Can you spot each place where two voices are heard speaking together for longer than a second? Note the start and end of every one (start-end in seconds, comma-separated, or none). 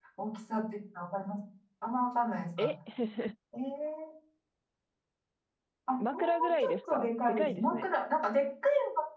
6.1-7.9